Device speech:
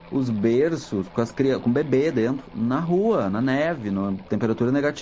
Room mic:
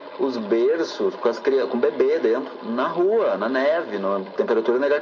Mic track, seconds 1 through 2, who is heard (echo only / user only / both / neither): echo only